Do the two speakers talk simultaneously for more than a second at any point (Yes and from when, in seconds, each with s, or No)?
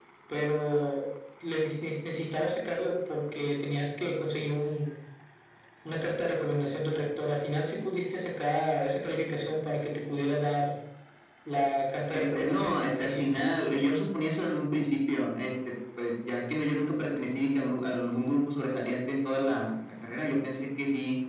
Yes, from 12.1 s